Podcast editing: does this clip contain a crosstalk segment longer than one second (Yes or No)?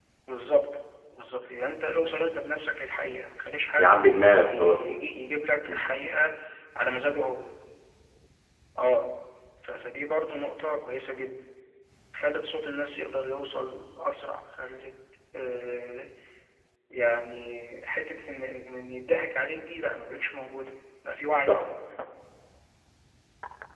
No